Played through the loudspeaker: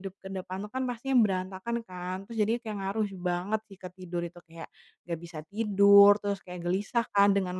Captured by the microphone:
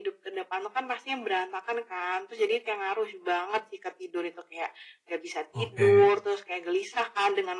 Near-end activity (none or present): present